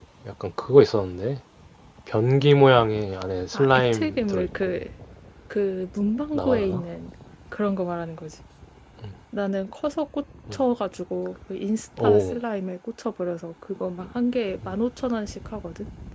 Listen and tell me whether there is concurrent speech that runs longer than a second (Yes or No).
Yes